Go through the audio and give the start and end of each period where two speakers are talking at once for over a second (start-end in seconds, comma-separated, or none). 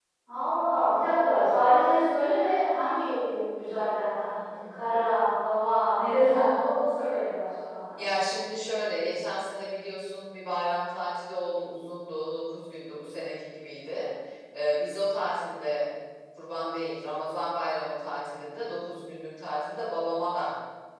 none